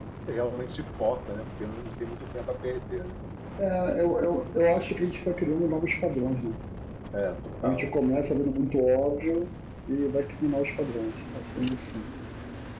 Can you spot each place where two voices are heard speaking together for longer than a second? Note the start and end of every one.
none

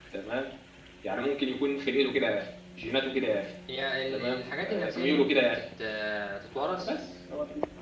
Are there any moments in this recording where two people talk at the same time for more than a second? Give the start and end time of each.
4.1-5.7

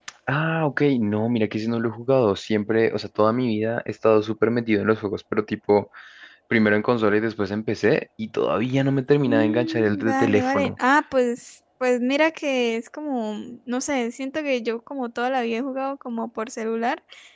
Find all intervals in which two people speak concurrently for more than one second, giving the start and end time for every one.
9.2-10.7

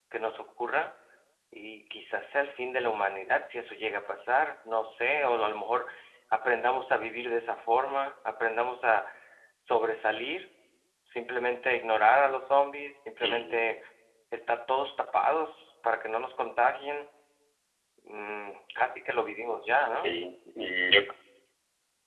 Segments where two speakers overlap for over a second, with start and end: none

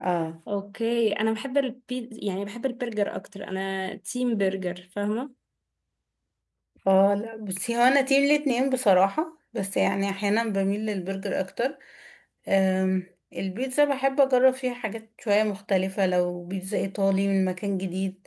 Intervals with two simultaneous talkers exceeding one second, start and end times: none

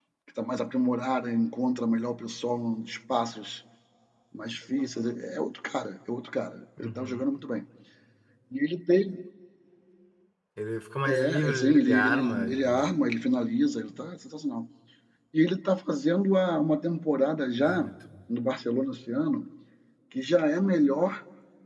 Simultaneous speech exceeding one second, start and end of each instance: 11.1-12.9

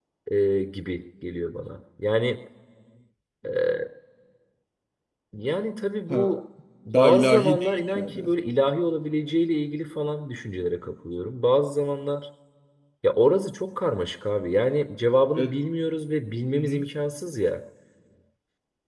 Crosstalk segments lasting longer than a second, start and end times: 6.9-8.2

